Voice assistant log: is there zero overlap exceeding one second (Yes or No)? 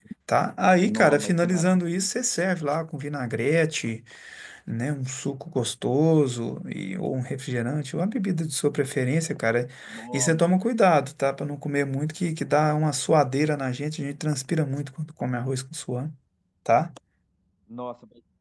No